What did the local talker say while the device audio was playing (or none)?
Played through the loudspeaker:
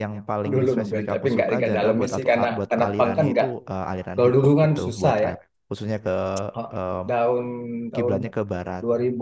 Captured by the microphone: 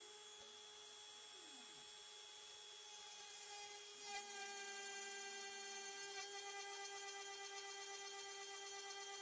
none